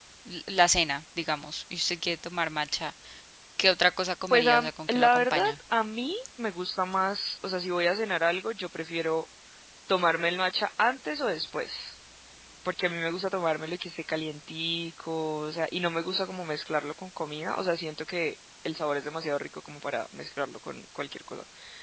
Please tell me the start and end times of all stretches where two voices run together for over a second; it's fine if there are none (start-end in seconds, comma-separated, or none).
4.3-5.5